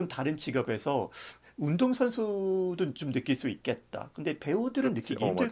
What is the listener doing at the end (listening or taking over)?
taking over